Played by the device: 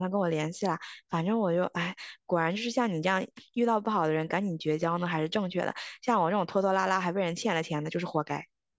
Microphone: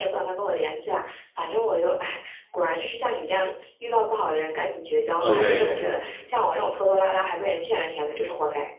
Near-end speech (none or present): present